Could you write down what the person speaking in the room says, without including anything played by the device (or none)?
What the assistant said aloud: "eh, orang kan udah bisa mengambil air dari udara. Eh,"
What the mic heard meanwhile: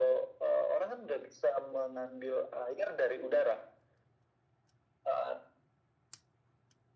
none